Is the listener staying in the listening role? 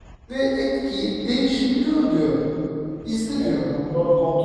No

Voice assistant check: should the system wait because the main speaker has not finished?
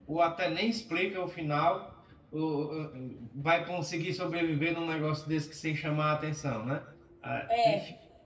No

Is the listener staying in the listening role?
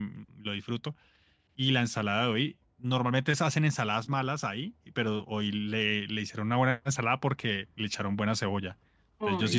Yes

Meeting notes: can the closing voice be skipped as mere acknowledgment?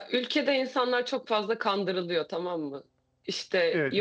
Yes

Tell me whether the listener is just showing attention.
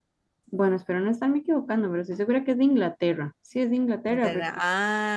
No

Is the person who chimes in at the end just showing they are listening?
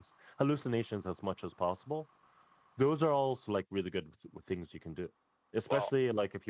Yes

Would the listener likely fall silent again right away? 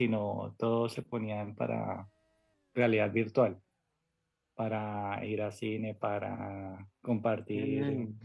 Yes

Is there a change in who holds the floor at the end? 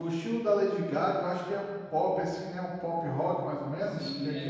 Yes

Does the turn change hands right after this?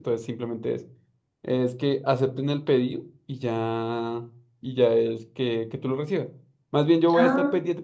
No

